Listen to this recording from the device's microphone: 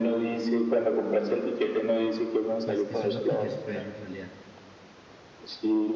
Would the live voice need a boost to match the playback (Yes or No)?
Yes